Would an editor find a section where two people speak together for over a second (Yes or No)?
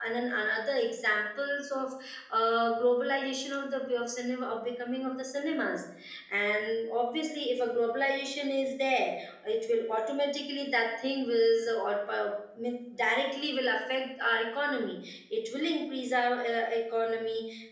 No